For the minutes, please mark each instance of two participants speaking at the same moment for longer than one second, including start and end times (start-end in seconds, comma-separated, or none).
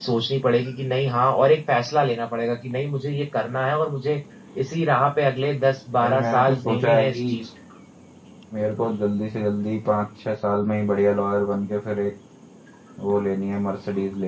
6.0-7.4